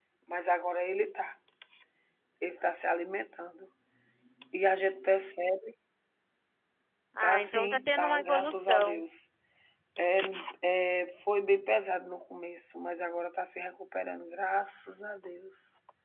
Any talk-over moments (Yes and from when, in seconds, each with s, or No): Yes, from 7.2 s